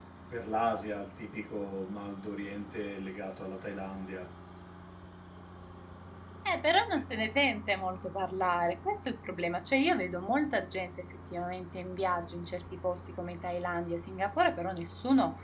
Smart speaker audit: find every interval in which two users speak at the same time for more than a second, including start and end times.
none

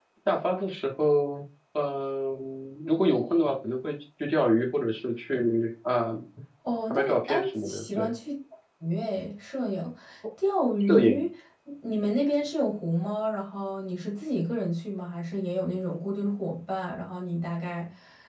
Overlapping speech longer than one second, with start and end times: 6.9-8.2

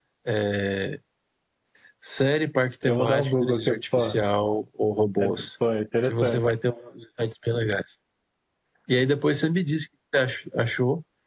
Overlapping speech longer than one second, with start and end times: 2.8-4.2

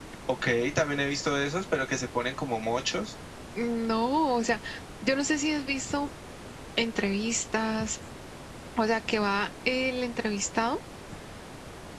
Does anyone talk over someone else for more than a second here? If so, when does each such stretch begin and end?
none

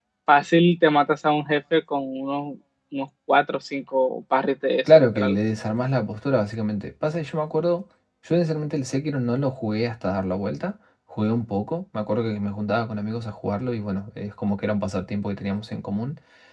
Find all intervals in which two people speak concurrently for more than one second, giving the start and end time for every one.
none

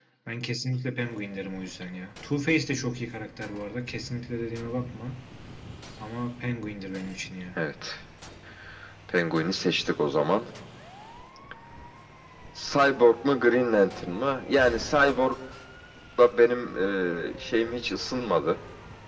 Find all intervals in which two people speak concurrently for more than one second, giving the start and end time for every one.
none

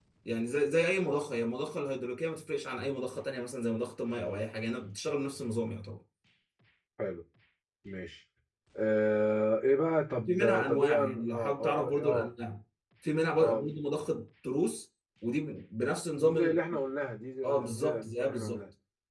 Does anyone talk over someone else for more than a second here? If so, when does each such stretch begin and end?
10.2-12.3, 17.4-18.6

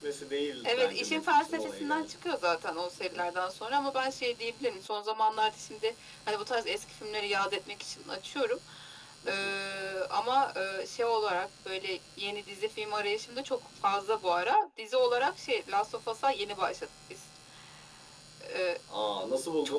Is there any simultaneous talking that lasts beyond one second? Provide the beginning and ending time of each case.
0.6-2.1

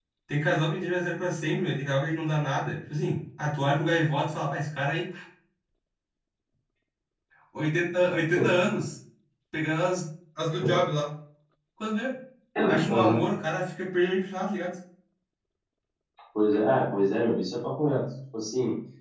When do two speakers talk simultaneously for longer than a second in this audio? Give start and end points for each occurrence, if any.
none

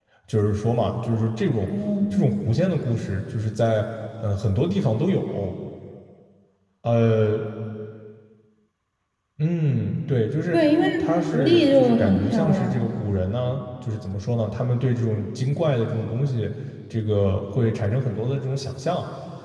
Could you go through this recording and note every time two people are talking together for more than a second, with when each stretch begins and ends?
11.3-12.8

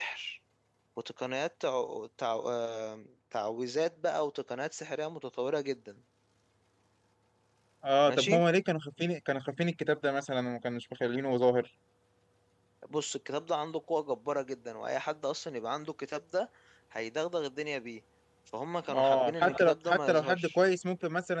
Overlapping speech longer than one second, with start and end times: 18.9-20.6

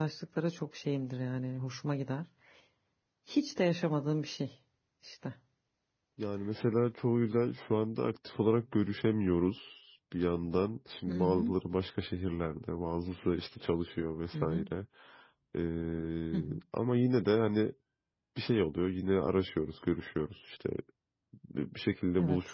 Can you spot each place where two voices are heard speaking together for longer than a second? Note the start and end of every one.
none

